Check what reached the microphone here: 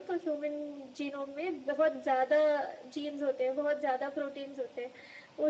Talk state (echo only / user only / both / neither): echo only